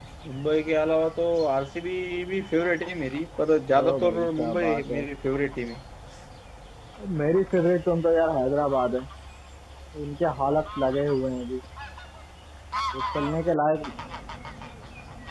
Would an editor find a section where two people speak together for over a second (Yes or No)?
Yes